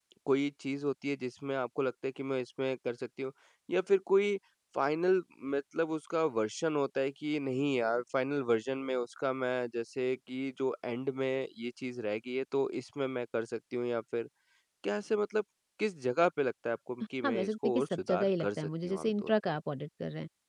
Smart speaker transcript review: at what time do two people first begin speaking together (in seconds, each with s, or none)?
17.2 s